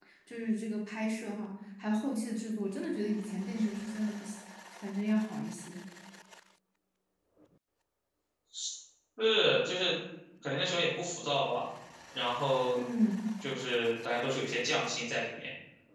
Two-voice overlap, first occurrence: none

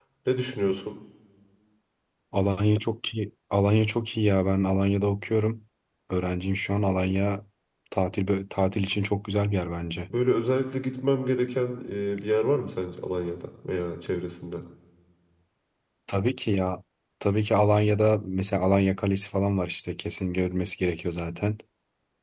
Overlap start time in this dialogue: none

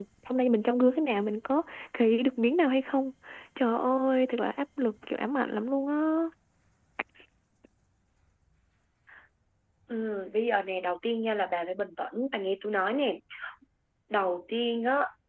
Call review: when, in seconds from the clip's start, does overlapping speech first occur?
none

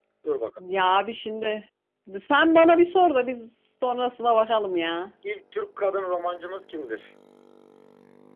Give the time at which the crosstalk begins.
none

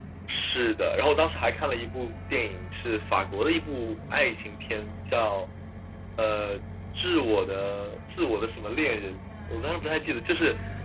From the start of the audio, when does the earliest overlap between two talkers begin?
none

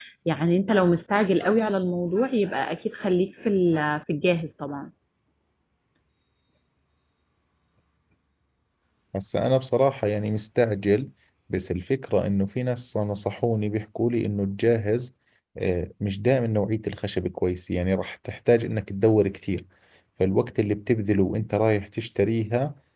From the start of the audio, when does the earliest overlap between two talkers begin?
none

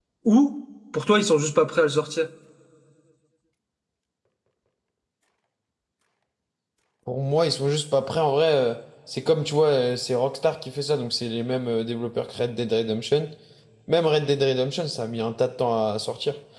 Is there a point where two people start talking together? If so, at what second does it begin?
none

